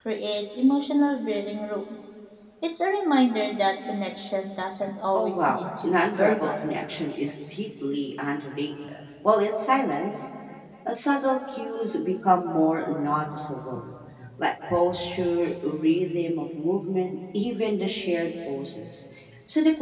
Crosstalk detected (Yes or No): Yes